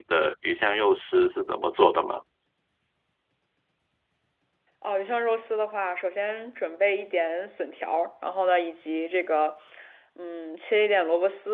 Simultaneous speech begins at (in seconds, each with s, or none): none